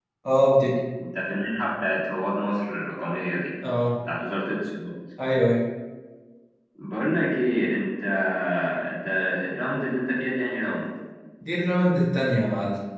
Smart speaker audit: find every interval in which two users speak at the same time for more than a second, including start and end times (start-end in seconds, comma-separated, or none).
none